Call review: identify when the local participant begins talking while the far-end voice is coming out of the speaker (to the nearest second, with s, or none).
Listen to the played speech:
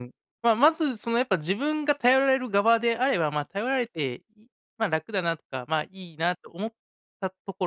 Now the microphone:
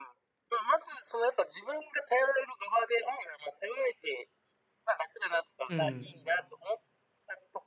6 s